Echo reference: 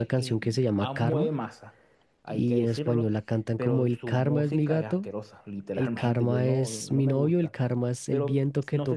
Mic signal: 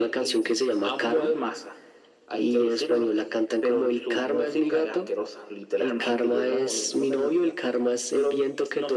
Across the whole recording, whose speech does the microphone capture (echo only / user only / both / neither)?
echo only